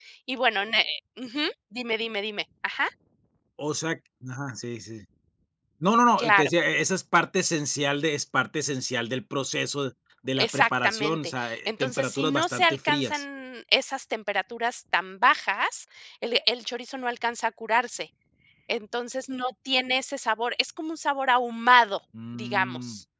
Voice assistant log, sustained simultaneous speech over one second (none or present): present